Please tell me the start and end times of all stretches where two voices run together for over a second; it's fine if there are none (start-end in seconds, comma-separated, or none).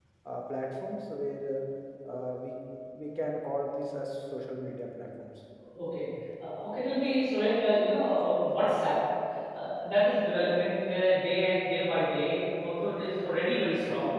none